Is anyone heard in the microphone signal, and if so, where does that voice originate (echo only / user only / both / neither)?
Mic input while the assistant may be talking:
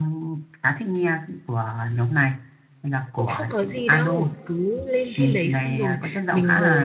both